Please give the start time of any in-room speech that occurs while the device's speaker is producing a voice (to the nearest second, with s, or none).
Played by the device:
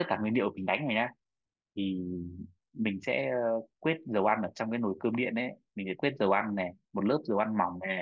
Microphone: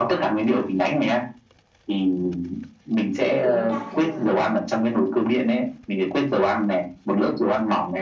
3 s